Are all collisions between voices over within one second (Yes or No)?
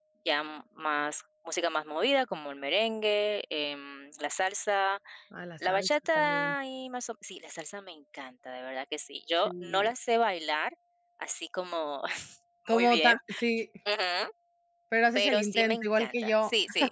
No